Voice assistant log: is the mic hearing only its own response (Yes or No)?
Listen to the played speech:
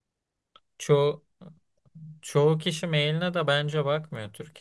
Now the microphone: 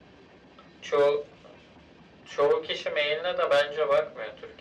Yes